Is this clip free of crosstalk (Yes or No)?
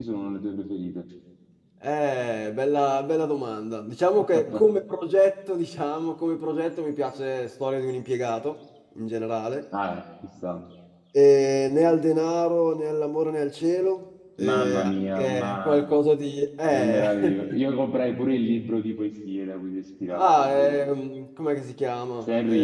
No